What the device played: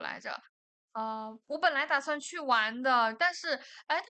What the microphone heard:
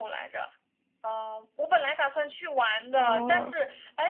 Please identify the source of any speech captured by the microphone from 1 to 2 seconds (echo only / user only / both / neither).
echo only